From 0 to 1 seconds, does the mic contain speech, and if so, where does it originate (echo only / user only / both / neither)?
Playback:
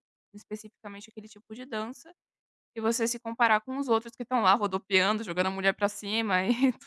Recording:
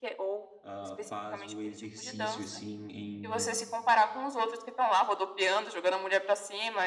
both